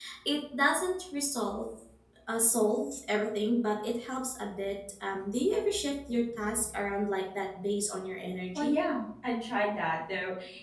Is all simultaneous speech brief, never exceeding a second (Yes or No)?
Yes